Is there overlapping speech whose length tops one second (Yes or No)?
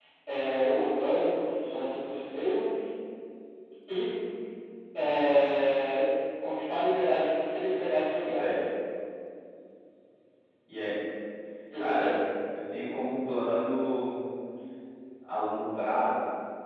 No